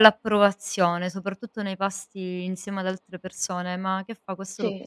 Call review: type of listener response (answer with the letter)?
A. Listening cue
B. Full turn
A